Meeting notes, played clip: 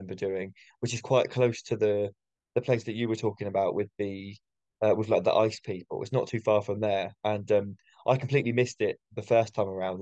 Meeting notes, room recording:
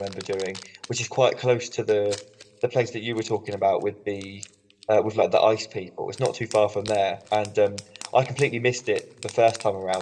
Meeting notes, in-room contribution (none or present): none